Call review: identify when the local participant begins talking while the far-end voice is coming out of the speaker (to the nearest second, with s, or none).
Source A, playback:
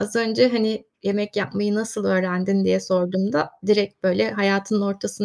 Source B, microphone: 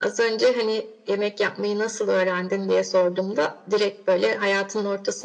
none